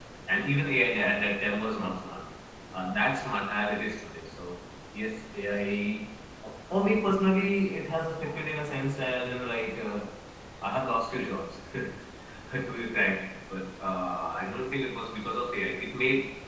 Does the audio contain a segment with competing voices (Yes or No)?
No